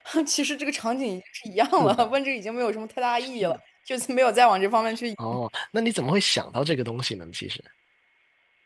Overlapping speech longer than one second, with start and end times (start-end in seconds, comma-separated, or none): none